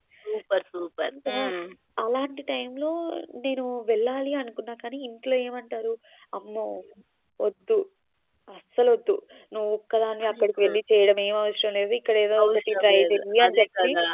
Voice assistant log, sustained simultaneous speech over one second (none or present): present